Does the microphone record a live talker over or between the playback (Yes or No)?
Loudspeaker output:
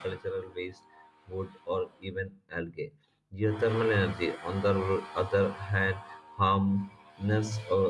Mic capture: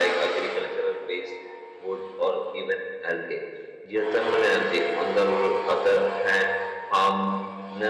No